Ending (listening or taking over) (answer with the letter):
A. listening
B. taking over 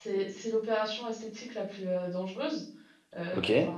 A